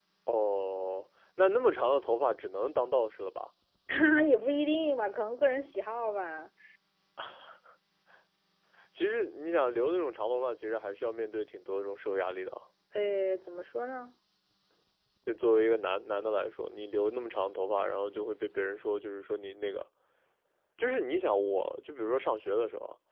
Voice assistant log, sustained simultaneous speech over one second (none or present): none